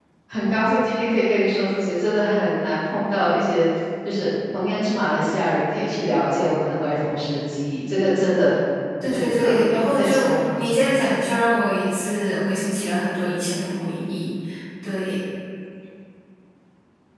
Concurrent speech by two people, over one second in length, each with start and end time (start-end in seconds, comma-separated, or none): 9.1-11.0